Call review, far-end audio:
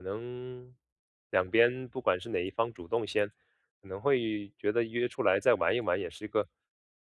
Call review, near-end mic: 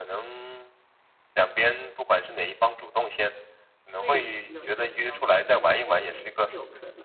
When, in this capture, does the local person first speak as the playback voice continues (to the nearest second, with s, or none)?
4 s